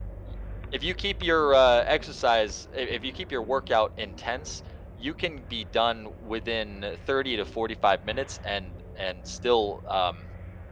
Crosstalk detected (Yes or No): No